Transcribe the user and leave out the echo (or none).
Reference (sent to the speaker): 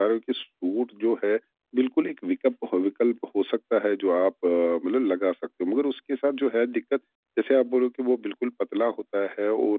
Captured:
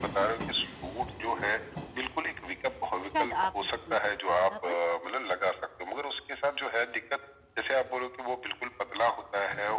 शायद आप मुझे कोई तरीका बता पाएँ?